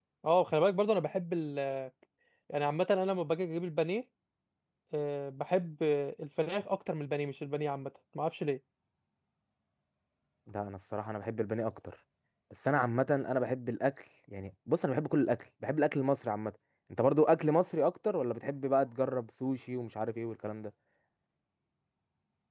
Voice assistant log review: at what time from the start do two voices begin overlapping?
none

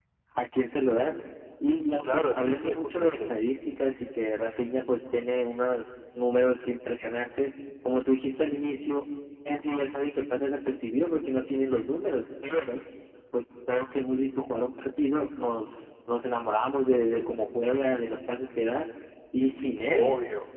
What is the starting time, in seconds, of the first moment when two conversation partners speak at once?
2 s

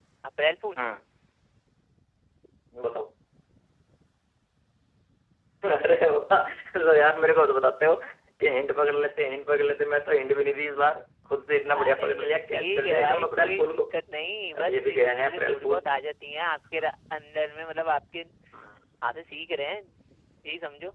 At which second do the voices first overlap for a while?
12 s

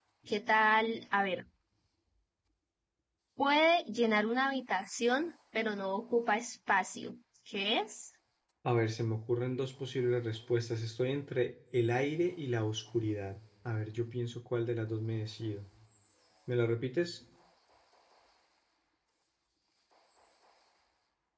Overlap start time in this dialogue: none

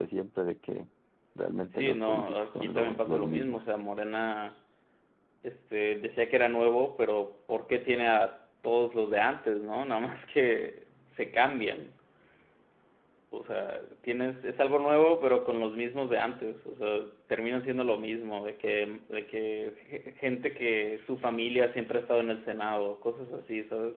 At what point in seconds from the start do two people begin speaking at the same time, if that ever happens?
2 s

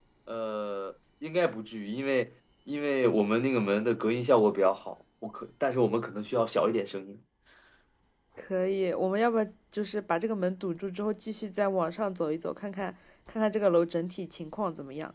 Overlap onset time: none

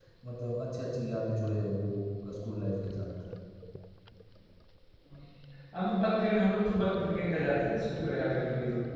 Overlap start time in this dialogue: none

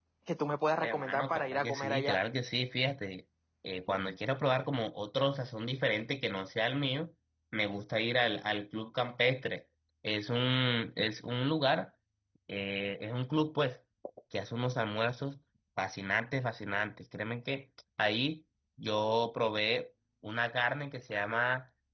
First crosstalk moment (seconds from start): 1 s

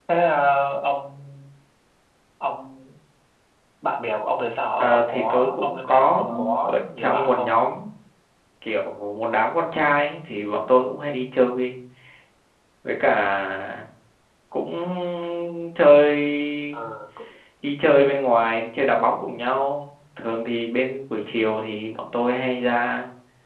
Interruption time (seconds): 5 s

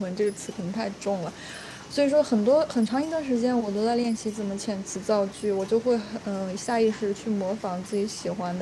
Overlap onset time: none

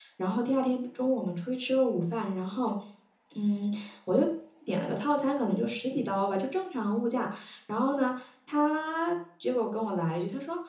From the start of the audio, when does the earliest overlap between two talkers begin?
none

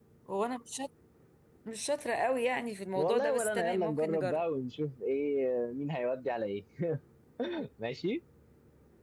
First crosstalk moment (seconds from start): 3 s

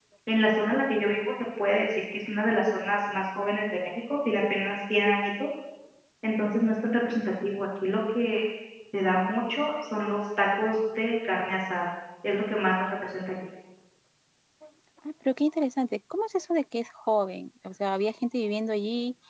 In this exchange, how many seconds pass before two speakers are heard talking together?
none

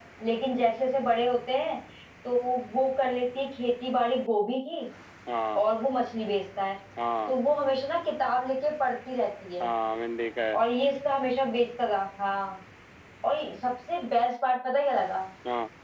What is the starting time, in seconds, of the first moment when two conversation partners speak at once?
none

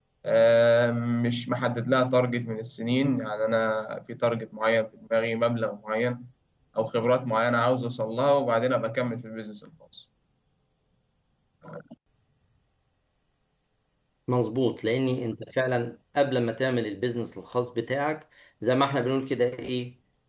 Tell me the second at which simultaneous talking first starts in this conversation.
none

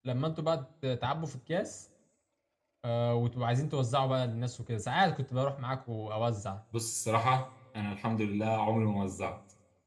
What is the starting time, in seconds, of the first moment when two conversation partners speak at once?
none

